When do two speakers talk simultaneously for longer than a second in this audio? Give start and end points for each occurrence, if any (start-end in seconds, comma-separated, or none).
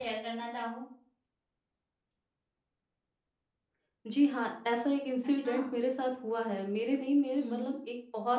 none